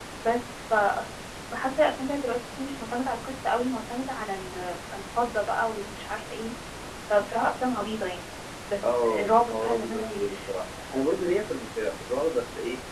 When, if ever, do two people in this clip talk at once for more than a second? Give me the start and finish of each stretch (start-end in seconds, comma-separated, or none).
9.0-10.3